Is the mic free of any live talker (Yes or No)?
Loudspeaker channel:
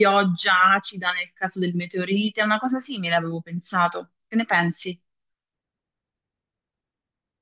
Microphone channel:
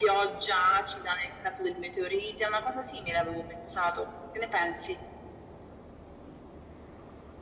Yes